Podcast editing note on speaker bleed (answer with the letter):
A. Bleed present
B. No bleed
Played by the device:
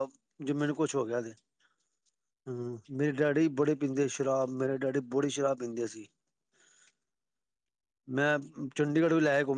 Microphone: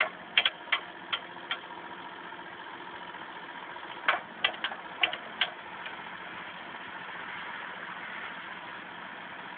B